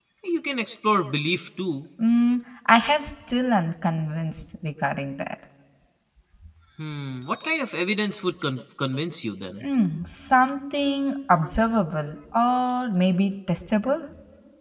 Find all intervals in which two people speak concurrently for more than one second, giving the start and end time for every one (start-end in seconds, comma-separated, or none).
none